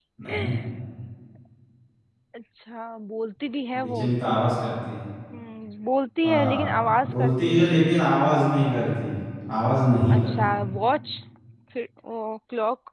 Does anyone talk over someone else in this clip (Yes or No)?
Yes